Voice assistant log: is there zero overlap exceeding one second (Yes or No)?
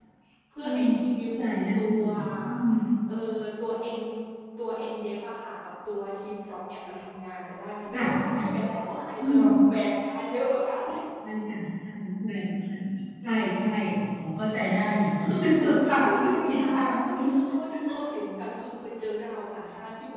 No